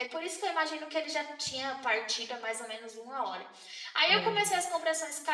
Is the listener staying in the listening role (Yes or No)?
Yes